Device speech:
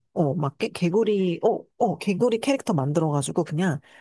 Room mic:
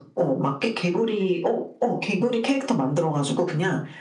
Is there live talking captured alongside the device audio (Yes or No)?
No